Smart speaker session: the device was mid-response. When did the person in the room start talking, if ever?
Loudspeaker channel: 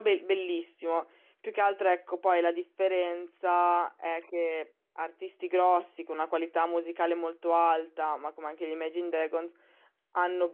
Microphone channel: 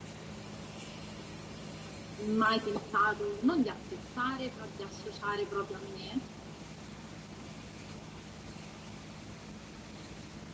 2 s

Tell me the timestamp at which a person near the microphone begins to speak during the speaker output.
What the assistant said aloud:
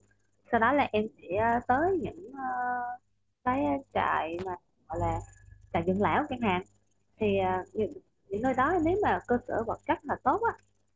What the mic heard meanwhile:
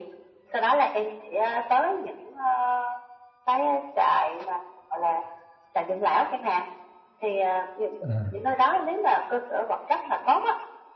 8 s

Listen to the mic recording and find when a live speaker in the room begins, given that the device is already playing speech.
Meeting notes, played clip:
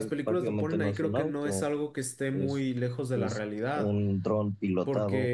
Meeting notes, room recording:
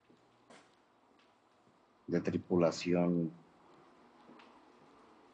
2 s

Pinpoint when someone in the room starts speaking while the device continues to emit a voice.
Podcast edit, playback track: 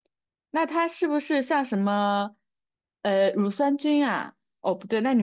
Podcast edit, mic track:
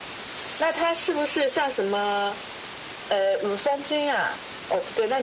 none

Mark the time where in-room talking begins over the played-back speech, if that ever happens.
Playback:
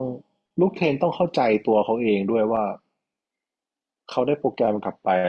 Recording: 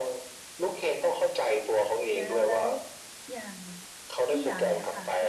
2 s

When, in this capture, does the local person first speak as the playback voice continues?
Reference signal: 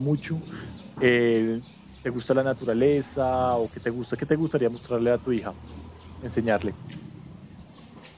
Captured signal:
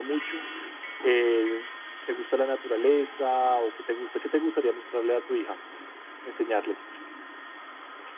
none

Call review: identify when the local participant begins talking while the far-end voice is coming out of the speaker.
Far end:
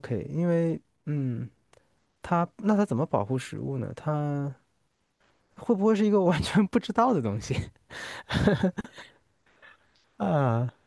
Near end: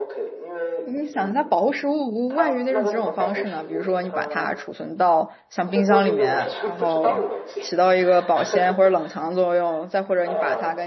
1 s

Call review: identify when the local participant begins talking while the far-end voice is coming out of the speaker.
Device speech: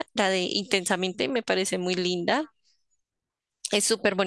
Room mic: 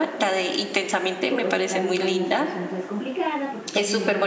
1 s

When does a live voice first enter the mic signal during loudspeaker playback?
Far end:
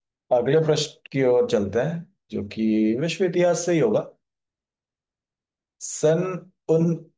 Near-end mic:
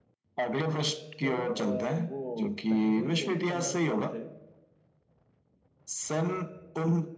1 s

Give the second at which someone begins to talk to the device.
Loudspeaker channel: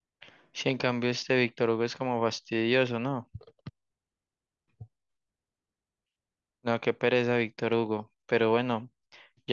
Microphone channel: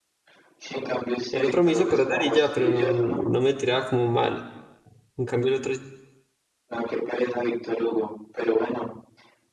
1 s

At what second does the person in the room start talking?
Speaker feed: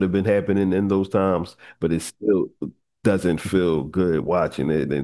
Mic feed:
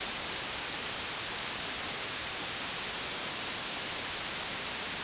none

